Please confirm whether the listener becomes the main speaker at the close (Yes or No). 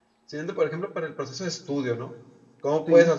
No